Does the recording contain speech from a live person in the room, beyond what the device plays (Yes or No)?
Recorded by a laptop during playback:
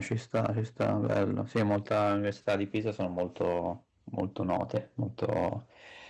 Yes